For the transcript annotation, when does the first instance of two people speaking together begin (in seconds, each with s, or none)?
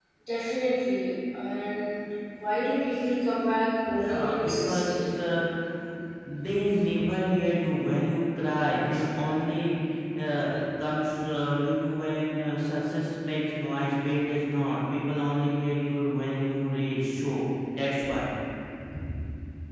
3.9 s